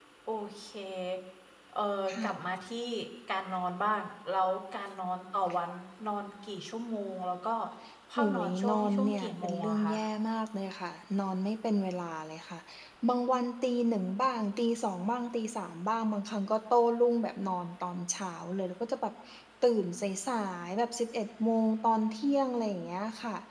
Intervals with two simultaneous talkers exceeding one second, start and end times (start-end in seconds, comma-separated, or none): 8.2-9.9